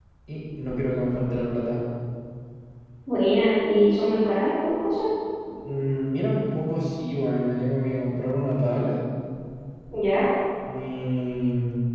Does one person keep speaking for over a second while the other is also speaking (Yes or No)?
No